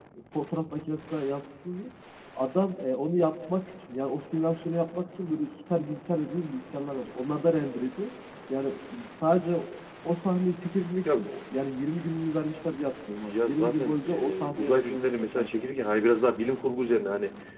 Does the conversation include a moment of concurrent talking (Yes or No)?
Yes